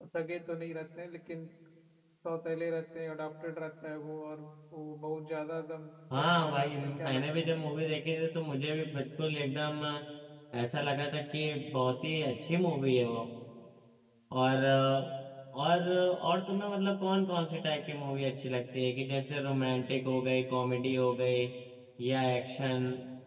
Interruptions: present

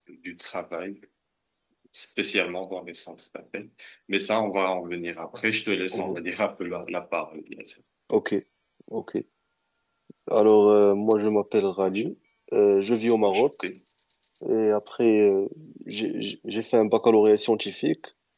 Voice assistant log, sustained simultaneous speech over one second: none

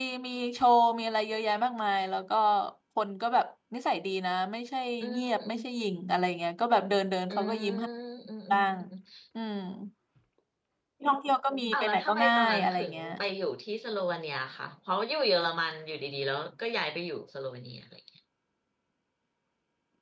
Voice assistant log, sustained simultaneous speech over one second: present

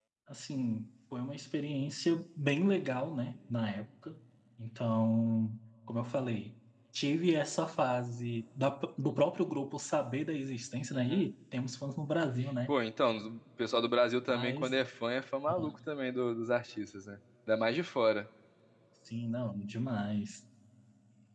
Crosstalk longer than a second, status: none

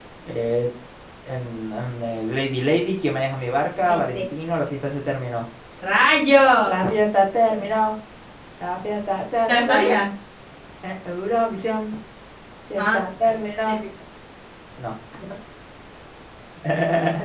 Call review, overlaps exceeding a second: none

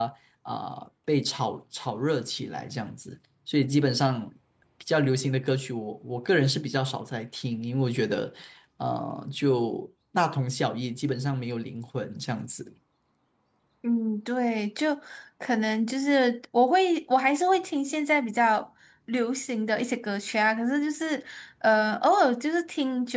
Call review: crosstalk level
none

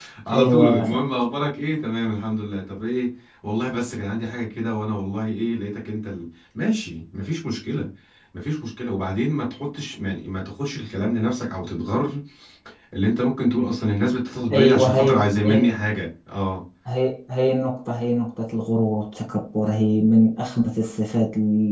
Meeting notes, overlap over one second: present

